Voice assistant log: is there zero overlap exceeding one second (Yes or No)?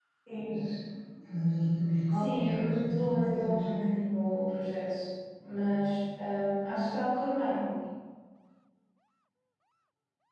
No